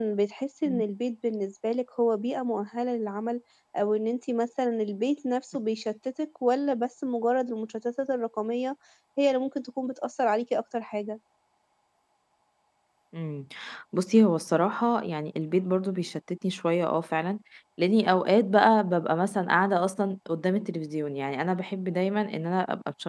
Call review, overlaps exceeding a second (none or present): none